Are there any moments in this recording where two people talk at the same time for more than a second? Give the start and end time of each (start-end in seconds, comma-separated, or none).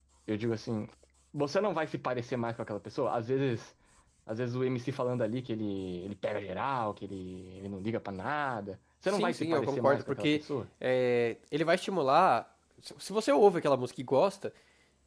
9.1-10.4